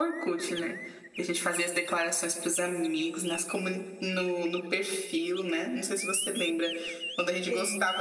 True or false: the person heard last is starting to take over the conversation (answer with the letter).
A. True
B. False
B